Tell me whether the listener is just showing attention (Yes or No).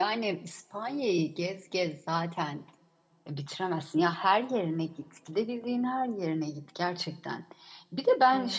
Yes